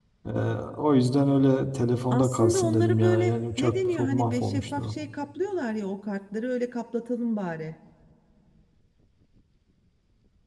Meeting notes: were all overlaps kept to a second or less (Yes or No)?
No